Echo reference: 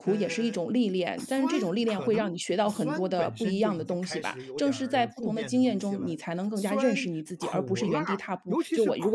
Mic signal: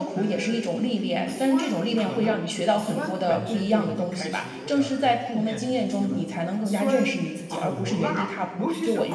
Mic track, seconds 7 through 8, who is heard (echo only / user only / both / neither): echo only